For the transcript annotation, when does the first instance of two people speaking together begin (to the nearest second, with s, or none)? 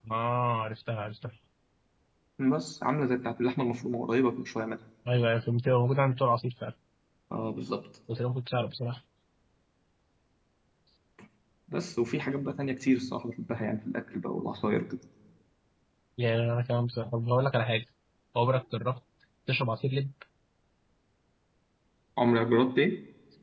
none